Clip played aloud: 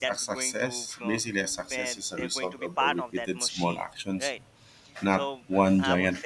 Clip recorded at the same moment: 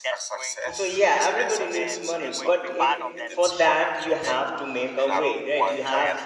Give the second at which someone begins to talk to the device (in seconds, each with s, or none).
0.7 s